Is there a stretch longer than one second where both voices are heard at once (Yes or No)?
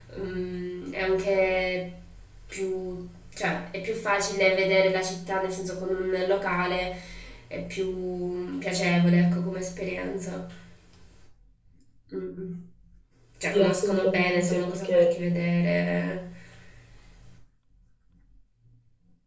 Yes